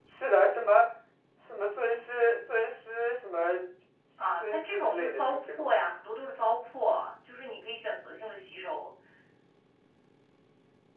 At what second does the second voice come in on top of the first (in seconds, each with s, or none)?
4.4 s